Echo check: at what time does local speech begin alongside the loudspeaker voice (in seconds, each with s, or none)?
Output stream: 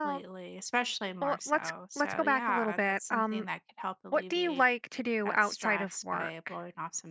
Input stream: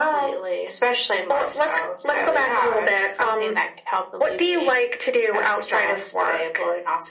none